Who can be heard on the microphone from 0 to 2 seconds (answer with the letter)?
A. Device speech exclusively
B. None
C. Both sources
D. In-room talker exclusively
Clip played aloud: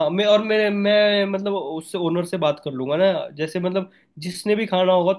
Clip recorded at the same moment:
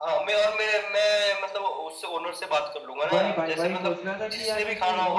A